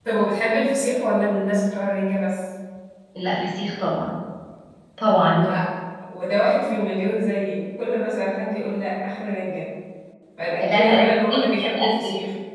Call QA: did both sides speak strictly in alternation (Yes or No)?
No